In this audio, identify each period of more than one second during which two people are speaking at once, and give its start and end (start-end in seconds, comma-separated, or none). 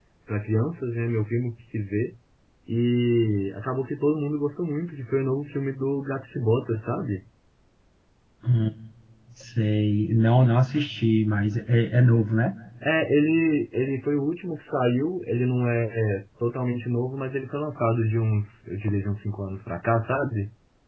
none